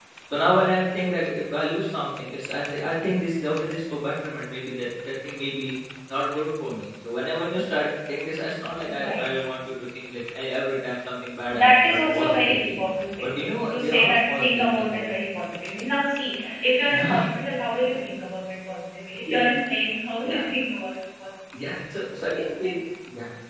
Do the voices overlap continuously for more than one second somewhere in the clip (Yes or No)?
Yes